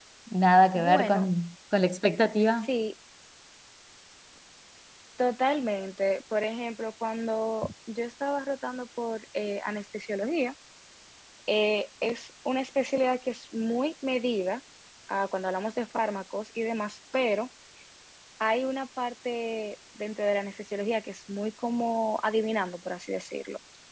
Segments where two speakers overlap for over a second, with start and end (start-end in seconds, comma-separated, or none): none